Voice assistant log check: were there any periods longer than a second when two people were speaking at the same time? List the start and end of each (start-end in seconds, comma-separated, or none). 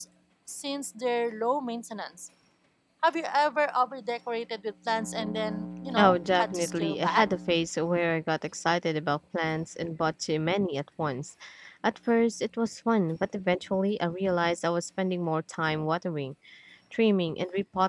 6.0-7.3